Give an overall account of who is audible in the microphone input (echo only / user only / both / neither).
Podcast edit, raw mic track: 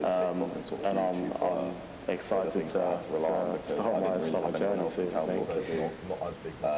both